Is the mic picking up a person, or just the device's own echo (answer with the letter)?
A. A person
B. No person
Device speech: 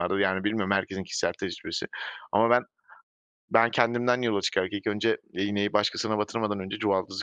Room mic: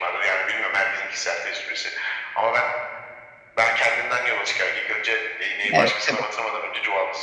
A